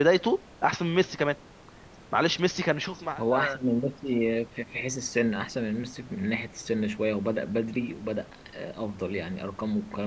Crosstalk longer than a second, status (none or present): none